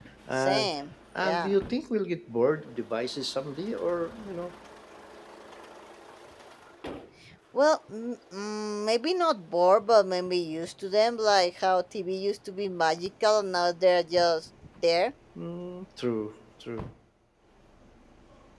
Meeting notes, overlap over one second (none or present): none